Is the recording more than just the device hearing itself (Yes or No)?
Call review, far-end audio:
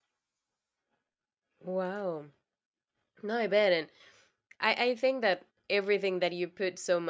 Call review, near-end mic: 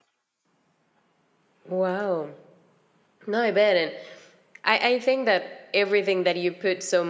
No